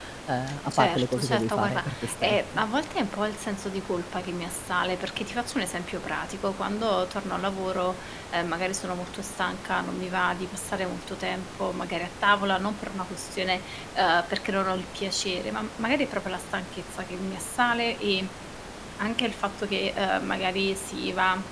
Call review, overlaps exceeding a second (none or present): present